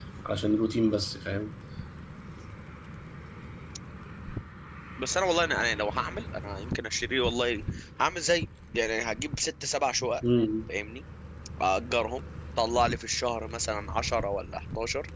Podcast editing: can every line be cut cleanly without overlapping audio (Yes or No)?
Yes